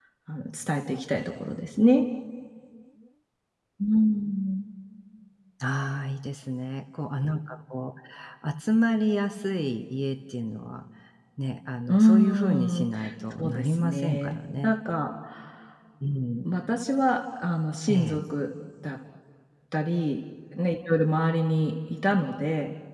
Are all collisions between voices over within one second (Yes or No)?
No